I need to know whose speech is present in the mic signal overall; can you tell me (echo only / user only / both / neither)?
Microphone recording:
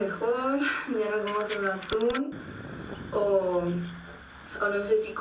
echo only